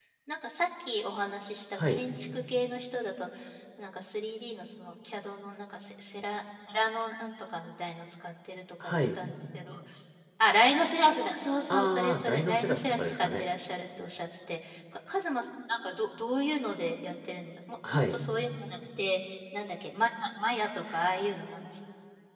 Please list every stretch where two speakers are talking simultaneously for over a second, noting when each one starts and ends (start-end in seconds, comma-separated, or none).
11.7-13.4